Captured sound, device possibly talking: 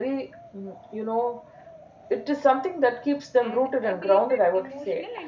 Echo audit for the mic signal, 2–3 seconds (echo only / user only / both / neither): echo only